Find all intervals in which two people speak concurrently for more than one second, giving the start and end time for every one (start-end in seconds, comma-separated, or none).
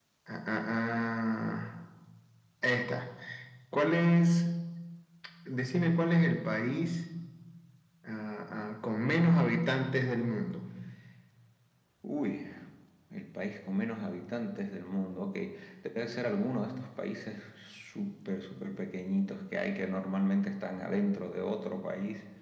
none